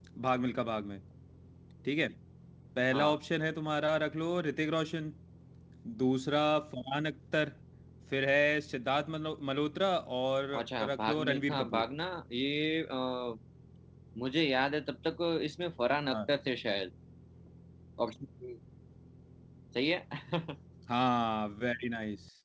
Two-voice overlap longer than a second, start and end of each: 10.6-11.8

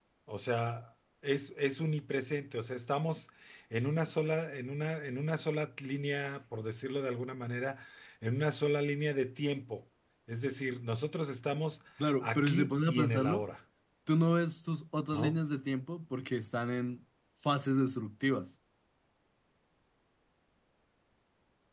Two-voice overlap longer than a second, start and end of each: 12.2-13.4

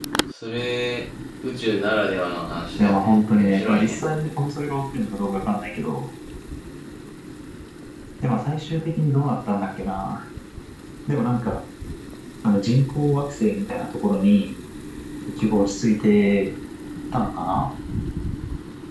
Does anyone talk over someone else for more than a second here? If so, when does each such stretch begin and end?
2.8-4.0

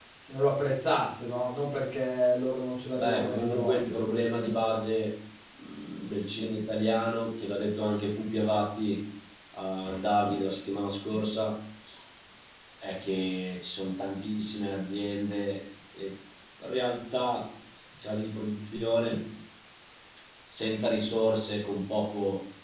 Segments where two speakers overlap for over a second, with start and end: 3.0-4.7

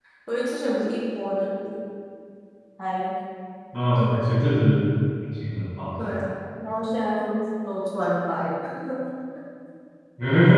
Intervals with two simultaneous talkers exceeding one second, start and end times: none

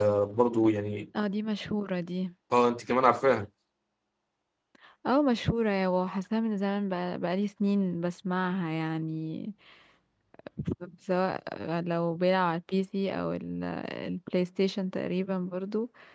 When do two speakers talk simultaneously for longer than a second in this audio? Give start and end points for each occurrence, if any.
none

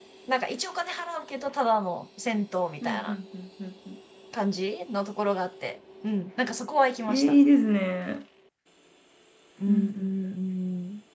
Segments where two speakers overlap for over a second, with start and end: none

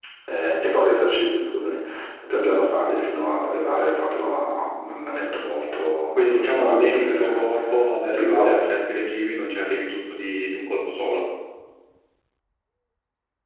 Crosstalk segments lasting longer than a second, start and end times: 6.2-7.4

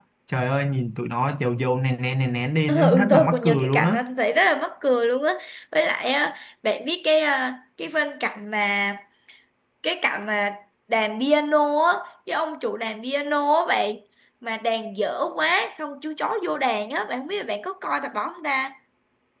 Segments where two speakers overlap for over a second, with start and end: 2.7-4.0

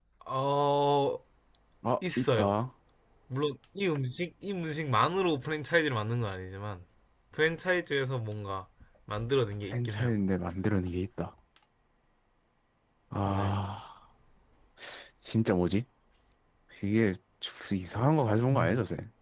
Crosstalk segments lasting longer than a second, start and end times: none

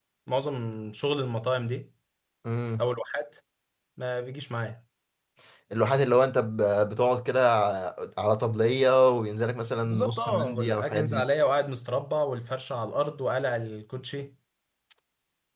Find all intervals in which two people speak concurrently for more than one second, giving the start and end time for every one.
9.8-11.2

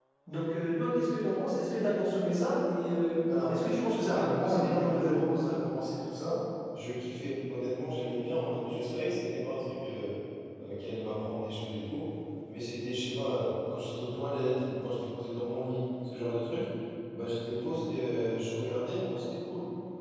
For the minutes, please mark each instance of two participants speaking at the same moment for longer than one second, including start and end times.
4.0-5.2

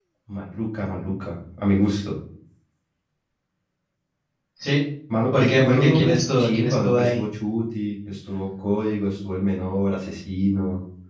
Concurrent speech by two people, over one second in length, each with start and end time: 5.3-7.2

